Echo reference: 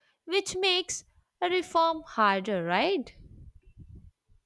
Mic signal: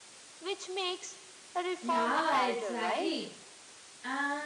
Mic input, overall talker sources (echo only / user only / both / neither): both